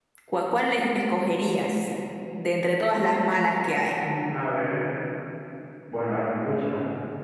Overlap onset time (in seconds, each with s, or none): none